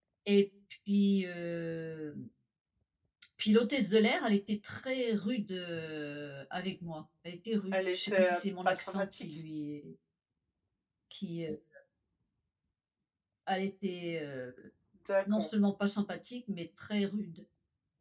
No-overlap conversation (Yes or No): No